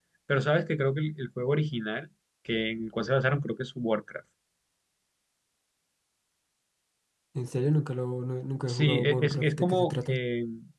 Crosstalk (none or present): present